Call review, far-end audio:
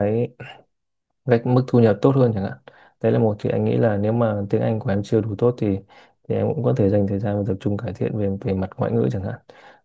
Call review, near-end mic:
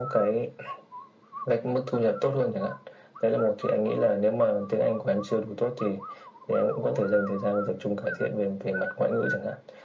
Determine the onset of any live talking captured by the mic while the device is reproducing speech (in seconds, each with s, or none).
none